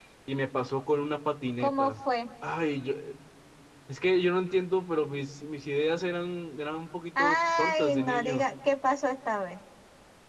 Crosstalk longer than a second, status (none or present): present